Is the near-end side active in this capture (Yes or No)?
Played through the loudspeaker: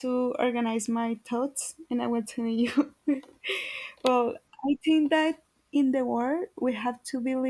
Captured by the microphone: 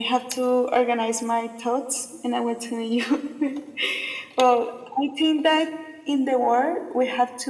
No